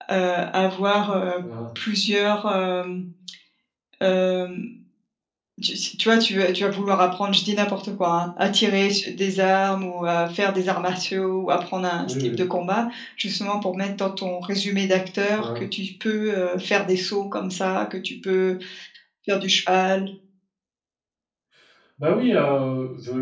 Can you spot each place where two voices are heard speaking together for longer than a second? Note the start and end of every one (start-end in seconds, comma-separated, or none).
none